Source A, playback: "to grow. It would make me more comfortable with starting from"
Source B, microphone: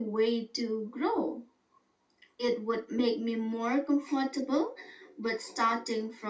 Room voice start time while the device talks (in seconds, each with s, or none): none